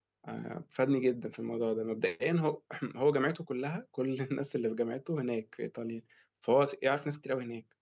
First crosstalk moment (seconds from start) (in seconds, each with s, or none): none